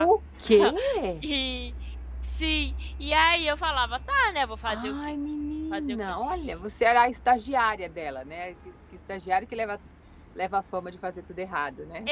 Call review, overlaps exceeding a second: none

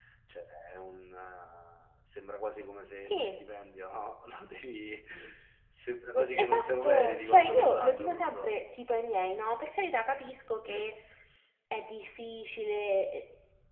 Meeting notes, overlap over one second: present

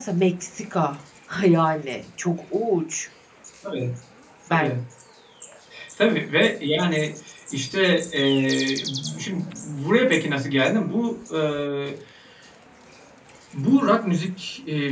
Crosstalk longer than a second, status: none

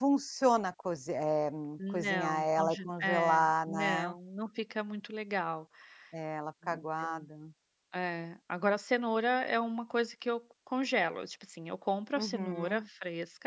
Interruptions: present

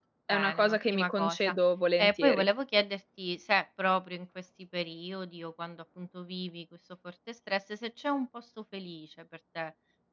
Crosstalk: present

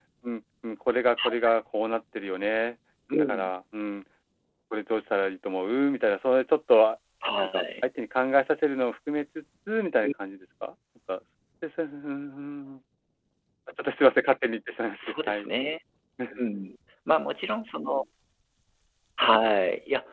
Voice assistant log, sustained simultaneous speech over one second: none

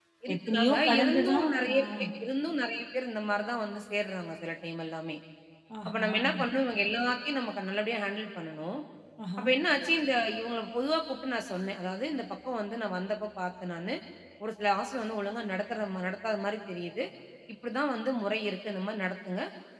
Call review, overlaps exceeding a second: present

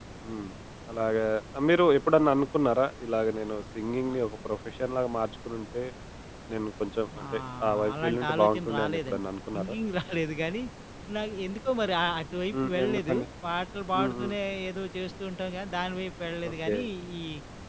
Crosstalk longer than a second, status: present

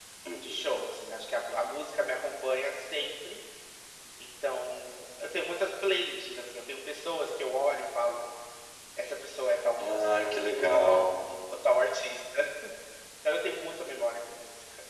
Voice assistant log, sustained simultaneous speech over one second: present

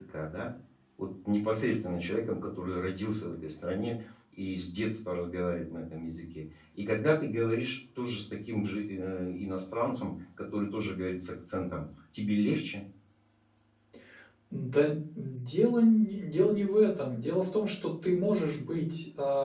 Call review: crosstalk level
none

